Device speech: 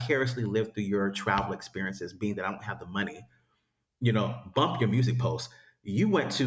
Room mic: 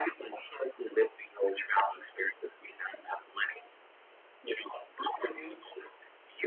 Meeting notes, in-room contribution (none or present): present